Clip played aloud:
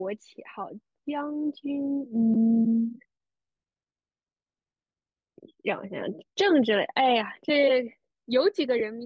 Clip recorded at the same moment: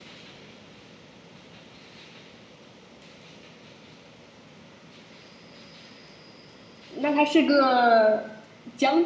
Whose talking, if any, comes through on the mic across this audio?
user only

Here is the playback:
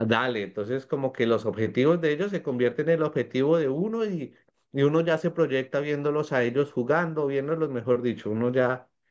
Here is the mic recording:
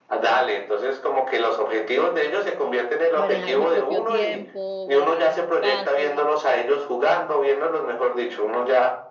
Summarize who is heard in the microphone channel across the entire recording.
both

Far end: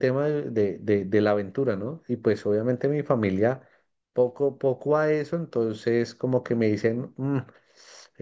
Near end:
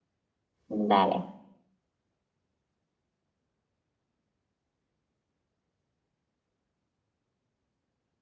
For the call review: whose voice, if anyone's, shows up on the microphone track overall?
user only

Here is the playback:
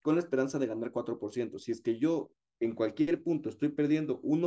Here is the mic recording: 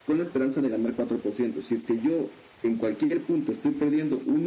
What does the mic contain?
echo only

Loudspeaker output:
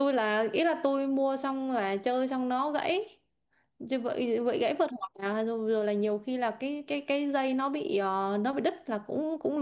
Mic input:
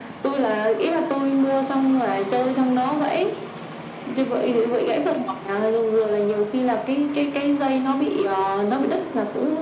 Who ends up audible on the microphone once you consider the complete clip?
echo only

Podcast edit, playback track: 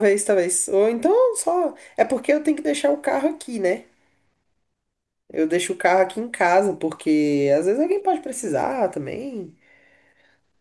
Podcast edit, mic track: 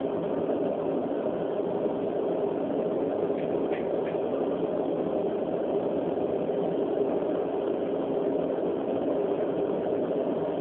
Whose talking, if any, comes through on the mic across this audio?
neither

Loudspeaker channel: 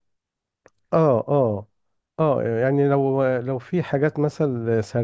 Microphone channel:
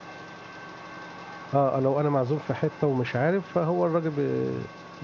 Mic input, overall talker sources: user only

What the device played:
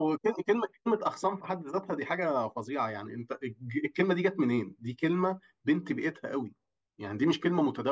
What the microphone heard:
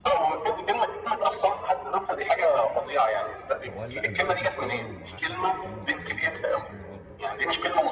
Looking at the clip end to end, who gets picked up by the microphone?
both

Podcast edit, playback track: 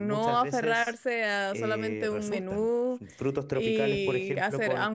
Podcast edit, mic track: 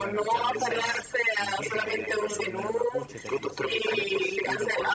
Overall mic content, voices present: both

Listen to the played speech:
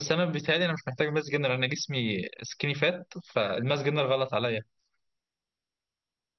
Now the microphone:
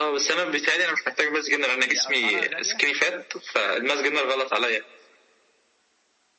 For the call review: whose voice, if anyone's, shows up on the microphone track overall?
both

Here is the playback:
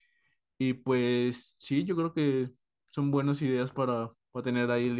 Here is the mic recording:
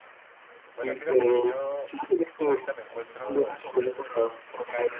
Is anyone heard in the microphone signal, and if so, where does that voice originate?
both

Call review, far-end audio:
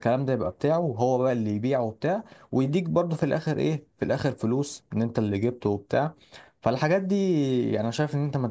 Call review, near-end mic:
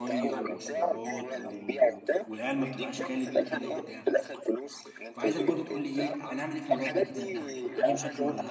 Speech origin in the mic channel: both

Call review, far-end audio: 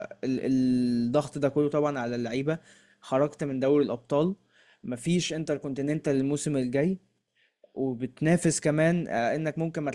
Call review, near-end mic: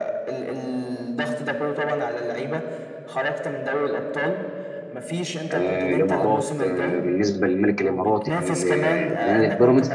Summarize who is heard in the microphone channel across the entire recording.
both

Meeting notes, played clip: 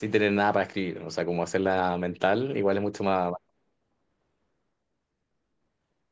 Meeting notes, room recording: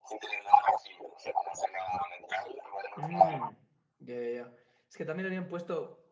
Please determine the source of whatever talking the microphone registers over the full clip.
both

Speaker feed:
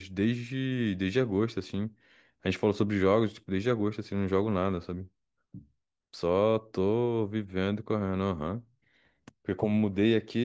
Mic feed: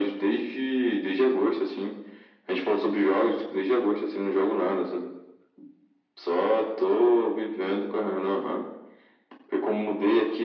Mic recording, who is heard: echo only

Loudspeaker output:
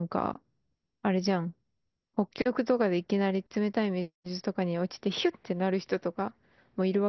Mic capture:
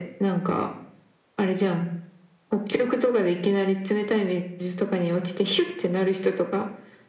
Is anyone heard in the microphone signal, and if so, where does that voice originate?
echo only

